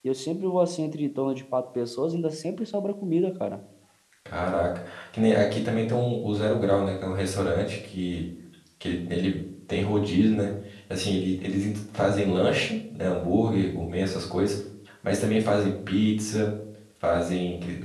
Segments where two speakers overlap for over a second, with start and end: none

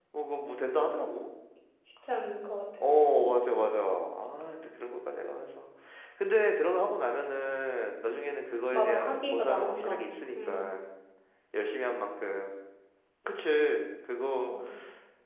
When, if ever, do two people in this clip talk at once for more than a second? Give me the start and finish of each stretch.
8.7-10.7

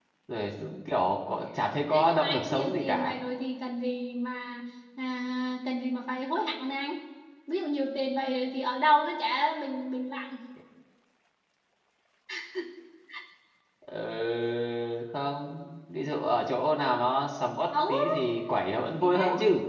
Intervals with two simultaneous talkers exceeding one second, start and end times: 1.9-3.1

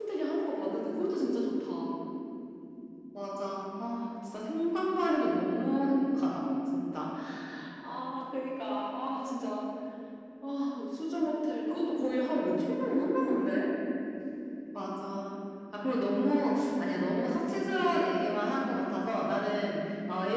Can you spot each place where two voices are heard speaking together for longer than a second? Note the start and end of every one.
none

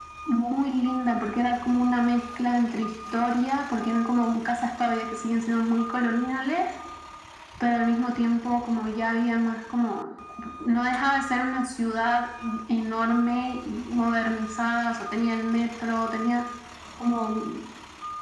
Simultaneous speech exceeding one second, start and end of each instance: none

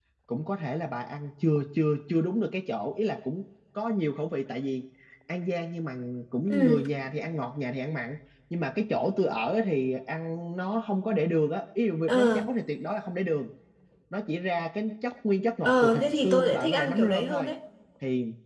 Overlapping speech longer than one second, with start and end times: 15.7-17.5

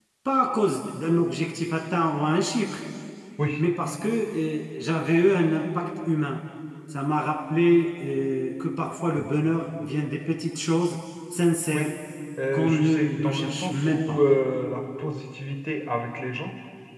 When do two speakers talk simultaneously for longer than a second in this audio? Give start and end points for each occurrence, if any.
12.5-14.2

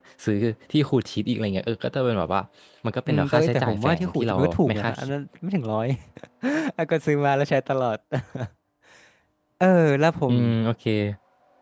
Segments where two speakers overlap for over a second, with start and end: 3.1-5.0

